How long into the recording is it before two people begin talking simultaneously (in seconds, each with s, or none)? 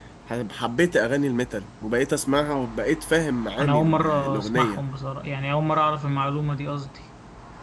3.6 s